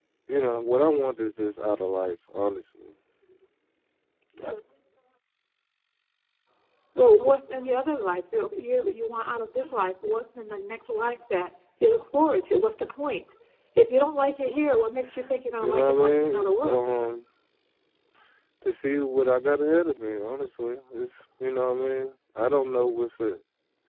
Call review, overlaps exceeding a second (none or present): present